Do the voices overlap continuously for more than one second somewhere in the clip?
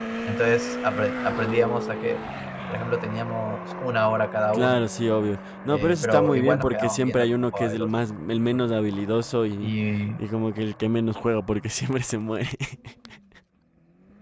Yes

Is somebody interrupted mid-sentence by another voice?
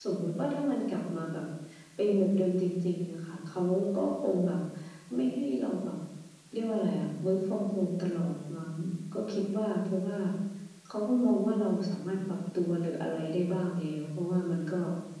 No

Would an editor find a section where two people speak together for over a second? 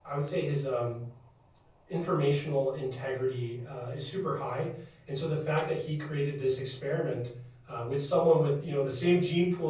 No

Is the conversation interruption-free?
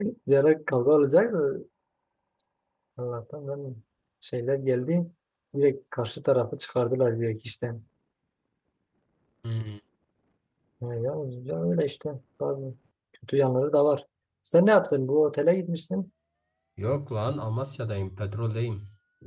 Yes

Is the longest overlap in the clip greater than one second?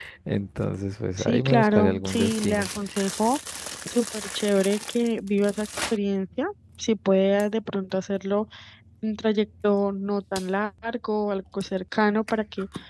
Yes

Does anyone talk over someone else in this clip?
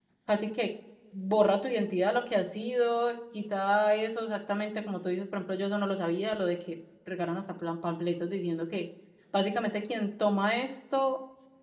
No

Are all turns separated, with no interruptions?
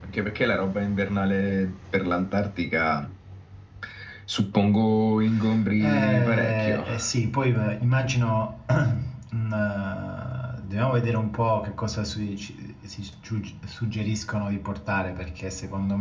No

